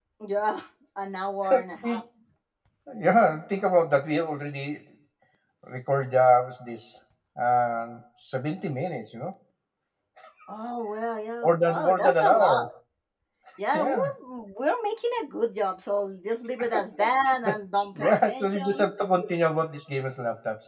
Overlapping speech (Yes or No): Yes